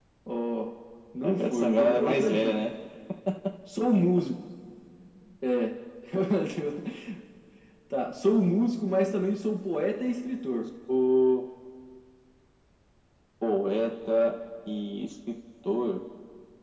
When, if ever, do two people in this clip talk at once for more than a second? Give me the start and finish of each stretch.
1.2-2.6

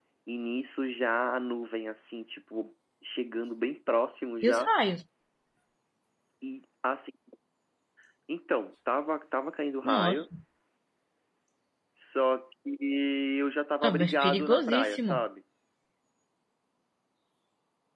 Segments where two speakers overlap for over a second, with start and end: 13.8-15.2

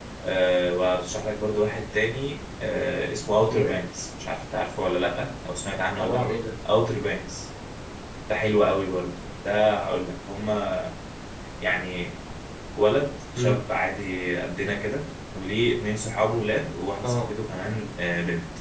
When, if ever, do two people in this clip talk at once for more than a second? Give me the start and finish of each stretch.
none

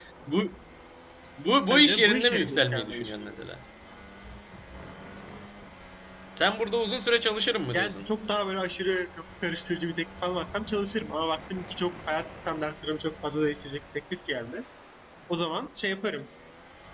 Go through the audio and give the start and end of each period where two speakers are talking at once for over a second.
1.7-3.4

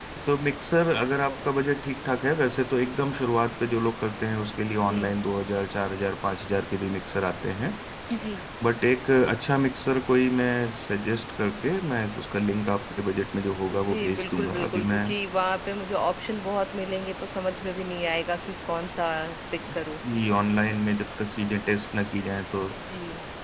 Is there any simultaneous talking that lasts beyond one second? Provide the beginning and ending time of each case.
13.7-15.1

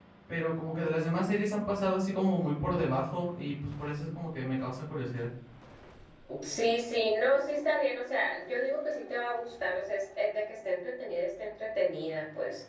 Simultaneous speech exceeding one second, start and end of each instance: none

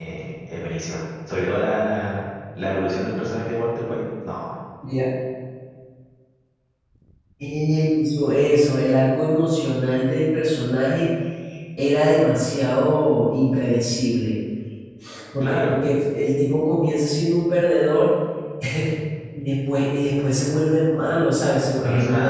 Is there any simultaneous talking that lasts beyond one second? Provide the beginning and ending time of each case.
none

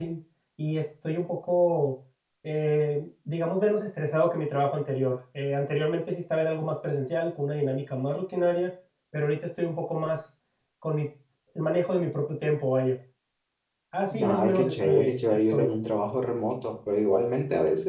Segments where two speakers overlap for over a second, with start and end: 14.2-15.7

